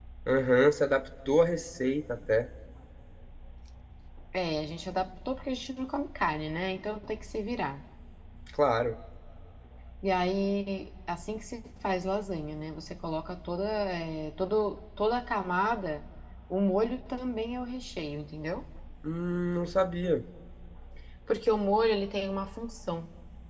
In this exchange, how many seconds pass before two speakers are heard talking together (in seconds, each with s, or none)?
none